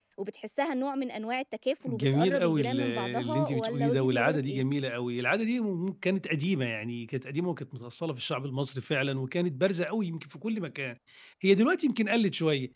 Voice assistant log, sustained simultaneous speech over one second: present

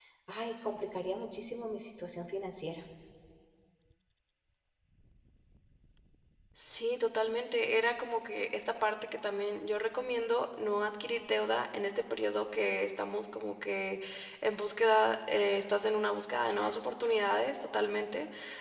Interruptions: none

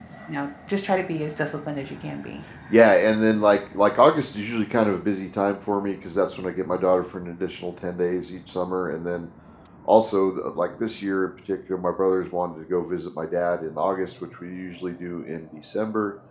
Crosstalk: none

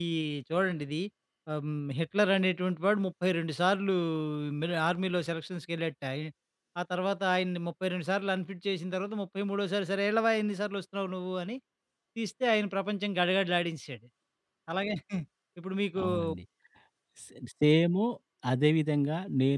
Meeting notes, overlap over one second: none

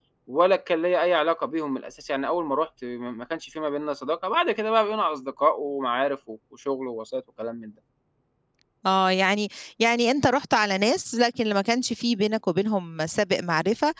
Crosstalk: none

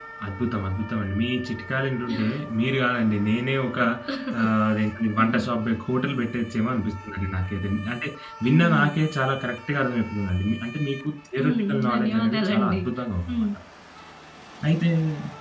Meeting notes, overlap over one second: present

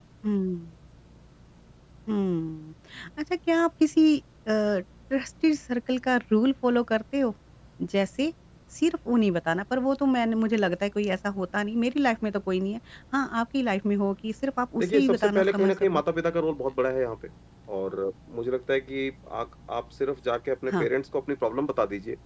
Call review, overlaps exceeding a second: present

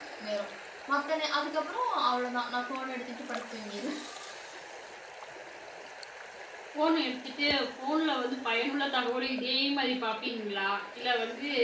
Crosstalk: none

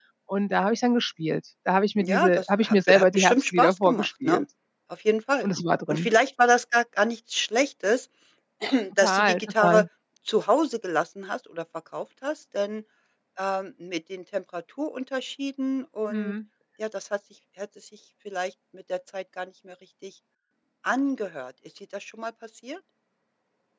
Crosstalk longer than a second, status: present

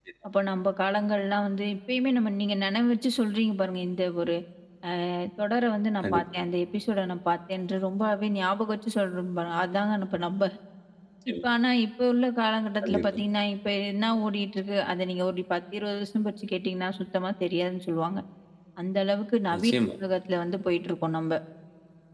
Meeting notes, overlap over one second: none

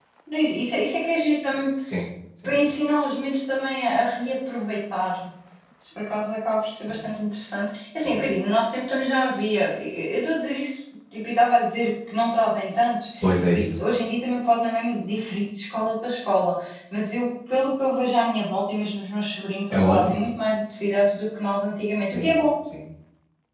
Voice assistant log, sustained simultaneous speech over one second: none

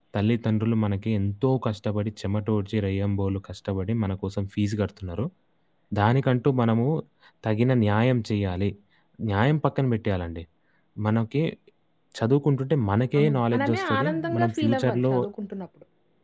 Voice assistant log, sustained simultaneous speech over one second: present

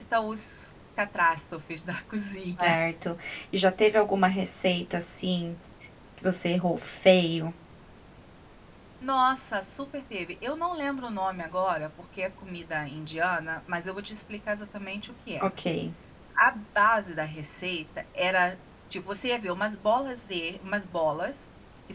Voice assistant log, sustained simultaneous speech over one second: none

